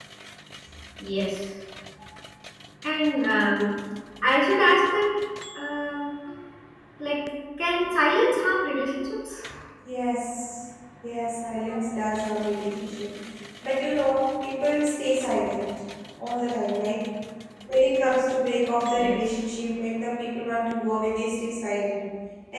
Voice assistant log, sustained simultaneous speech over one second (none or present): none